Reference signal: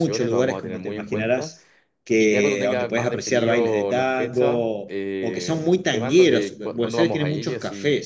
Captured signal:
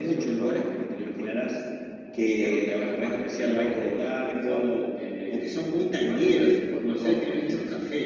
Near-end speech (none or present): none